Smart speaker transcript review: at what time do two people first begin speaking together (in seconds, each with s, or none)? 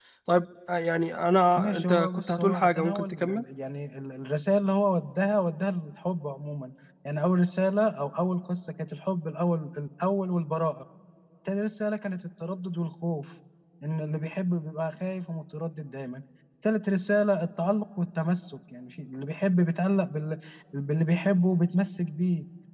1.6 s